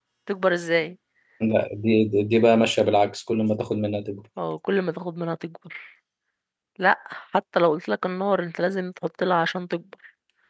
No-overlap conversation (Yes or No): Yes